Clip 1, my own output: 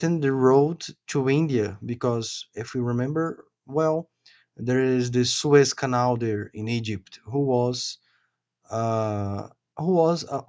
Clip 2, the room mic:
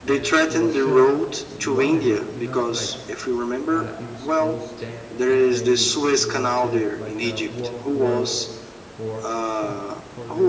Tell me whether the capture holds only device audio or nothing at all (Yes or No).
No